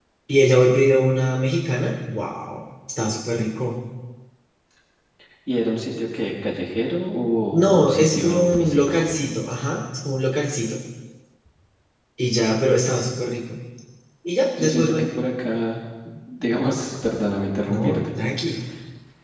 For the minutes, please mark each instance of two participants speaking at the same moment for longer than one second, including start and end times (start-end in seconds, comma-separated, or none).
7.5-9.1